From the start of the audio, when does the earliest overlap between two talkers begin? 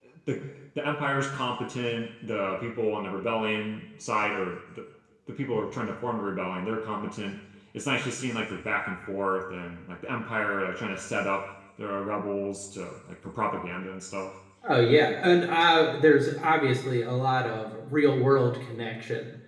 none

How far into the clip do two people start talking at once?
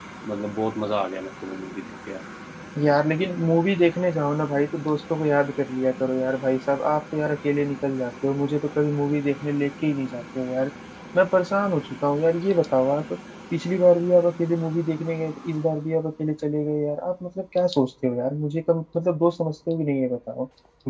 none

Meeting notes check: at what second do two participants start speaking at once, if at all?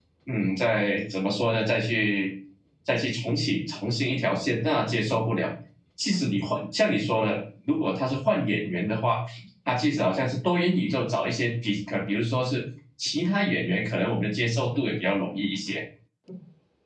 none

